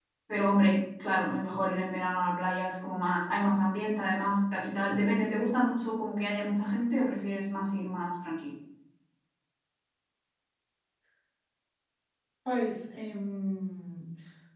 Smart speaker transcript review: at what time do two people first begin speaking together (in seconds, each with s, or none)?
none